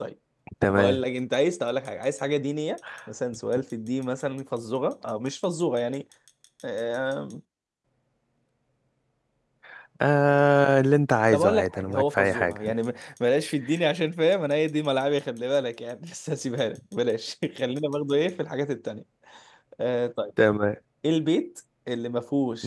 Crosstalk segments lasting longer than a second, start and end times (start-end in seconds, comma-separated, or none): 11.3-12.7